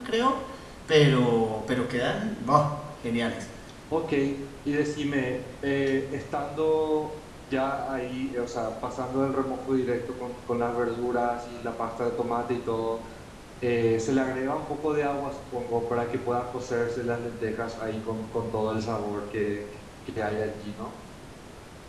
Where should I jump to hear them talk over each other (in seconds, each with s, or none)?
none